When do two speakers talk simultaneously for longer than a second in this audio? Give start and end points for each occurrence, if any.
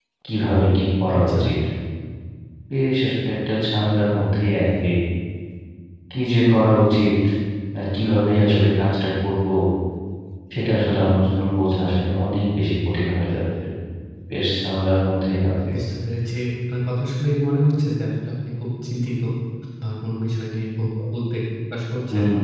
none

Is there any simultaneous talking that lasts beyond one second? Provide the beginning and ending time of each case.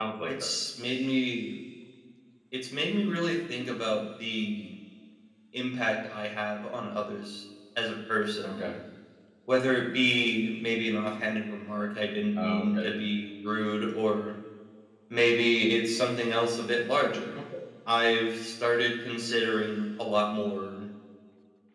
none

